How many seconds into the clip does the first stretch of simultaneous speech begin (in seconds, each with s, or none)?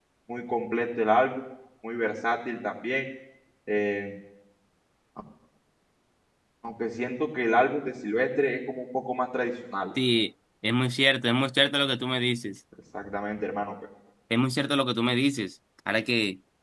none